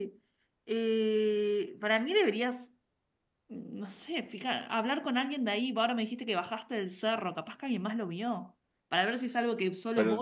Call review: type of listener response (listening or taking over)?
taking over